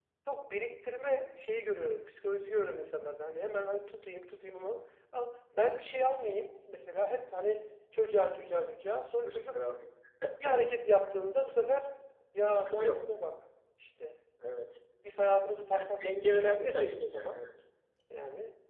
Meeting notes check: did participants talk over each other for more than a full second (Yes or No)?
Yes